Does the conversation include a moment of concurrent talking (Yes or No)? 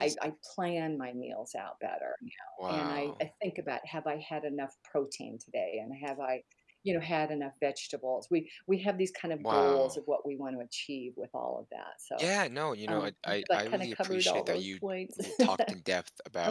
Yes